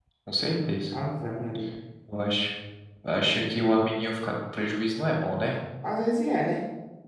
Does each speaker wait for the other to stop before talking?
Yes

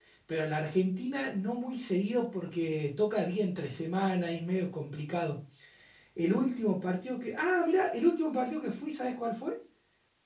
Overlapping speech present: No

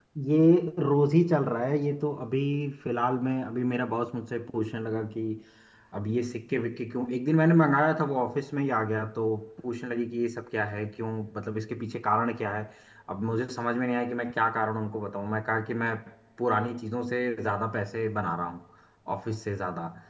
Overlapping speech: No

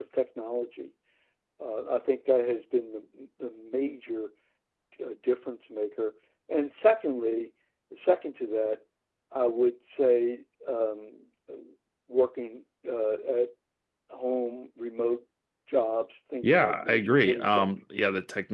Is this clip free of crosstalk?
No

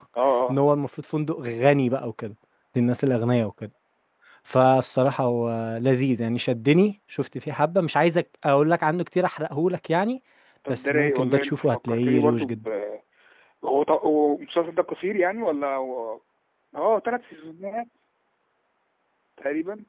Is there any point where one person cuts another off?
Yes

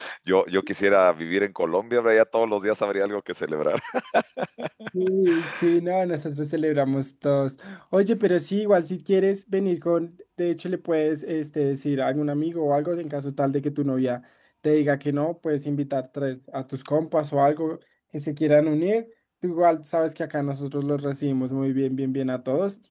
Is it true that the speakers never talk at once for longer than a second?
Yes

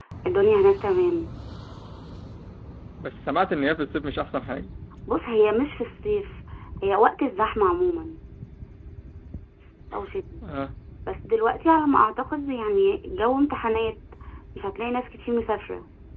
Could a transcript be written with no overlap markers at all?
Yes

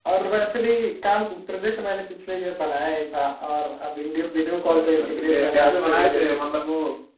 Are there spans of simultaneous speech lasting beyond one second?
Yes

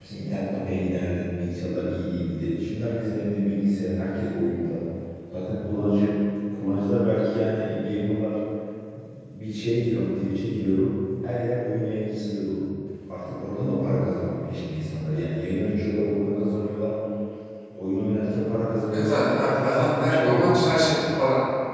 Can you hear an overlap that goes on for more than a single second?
Yes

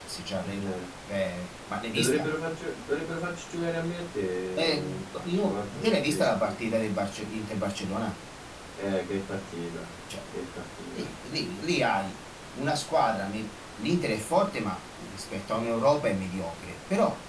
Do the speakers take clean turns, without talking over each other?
No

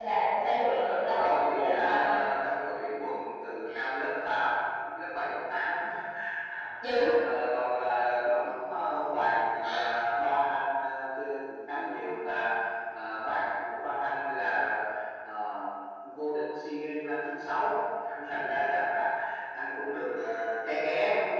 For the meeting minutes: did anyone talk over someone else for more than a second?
Yes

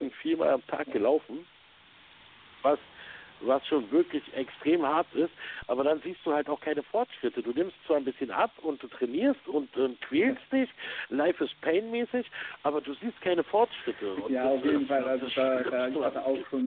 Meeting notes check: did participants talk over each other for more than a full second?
Yes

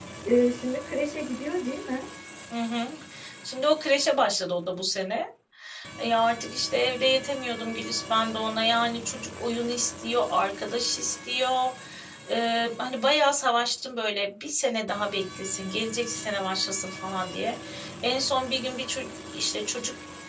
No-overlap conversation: Yes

